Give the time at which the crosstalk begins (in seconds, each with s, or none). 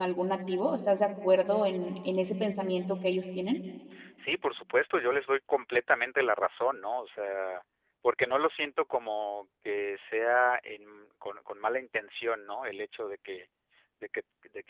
none